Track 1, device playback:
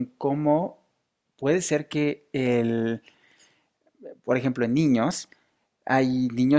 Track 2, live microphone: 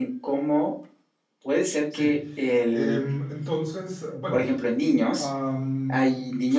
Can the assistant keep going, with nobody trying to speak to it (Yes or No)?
No